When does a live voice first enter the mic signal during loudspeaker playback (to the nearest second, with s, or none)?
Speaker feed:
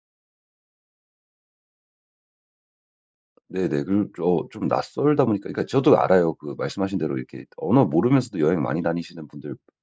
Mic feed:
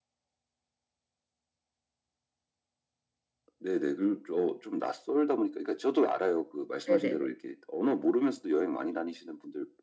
7 s